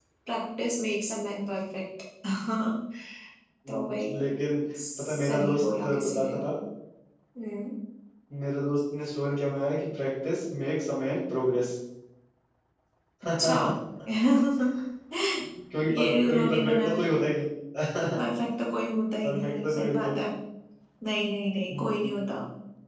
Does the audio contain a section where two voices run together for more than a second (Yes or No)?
Yes